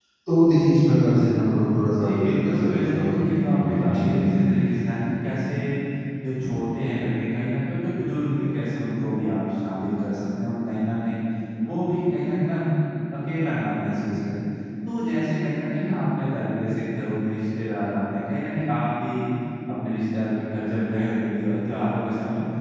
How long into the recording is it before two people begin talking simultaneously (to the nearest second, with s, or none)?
2 s